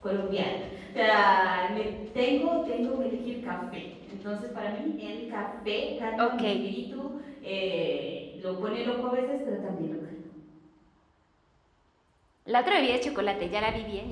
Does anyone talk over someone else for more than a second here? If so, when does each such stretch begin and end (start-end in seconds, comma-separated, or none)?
none